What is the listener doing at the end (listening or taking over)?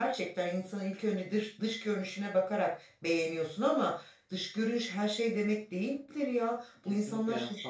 taking over